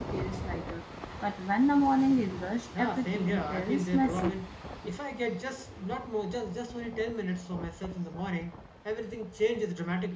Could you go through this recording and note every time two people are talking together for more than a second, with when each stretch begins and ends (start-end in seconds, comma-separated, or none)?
2.8-4.3